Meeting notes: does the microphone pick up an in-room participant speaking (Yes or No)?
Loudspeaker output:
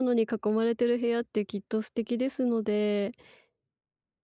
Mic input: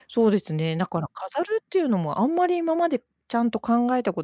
Yes